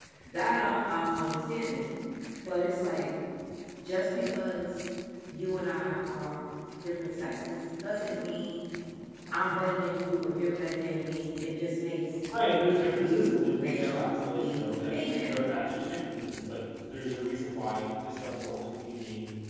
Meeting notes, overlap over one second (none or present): present